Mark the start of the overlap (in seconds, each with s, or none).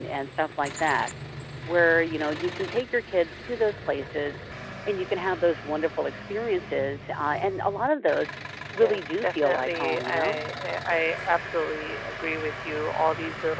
8.8 s